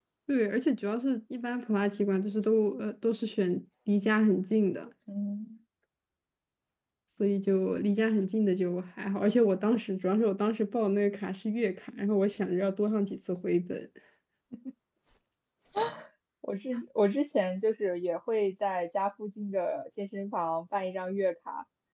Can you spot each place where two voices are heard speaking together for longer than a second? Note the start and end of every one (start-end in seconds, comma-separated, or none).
none